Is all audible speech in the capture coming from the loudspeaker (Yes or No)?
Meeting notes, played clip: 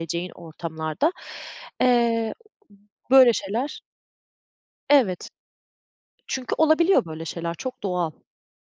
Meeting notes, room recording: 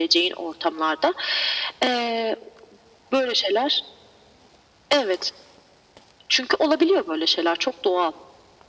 Yes